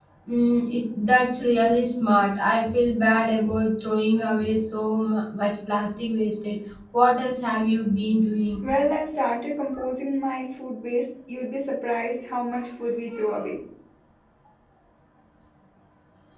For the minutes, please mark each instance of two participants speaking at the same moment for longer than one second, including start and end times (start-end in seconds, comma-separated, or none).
none